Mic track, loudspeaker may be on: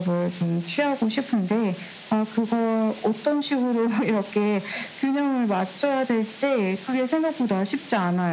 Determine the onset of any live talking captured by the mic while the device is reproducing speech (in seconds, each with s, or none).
none